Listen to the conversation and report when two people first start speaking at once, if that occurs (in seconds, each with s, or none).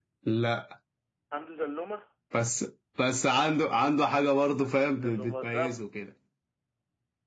4.6 s